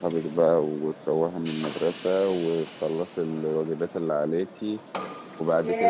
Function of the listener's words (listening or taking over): taking over